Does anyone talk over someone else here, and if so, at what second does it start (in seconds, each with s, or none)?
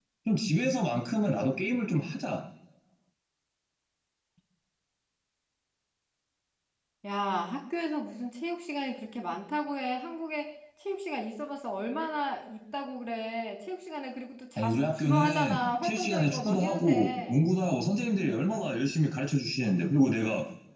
14.6 s